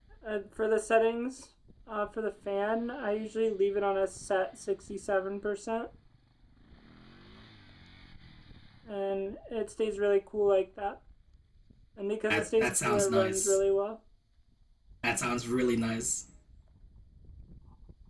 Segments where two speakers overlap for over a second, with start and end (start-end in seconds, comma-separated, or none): 12.3-13.6